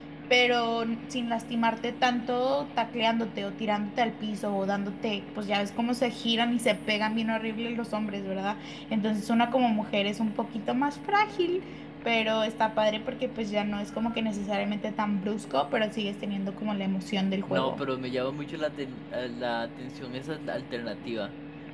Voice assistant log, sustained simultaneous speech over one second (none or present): none